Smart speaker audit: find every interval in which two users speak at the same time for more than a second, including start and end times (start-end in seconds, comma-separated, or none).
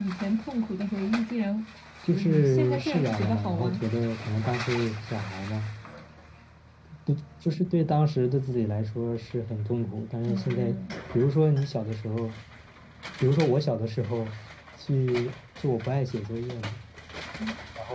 2.1-3.8